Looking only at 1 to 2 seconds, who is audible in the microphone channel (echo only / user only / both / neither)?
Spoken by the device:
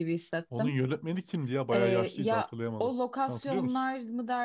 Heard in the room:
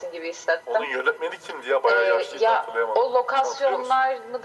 echo only